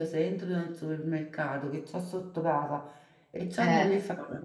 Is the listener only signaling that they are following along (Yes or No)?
Yes